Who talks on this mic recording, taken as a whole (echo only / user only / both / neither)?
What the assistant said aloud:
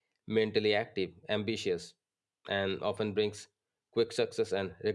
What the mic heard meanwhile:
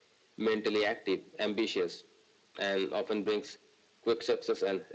echo only